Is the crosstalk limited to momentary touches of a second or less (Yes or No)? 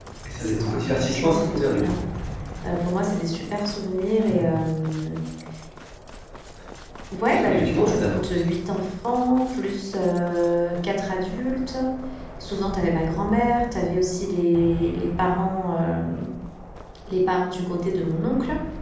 No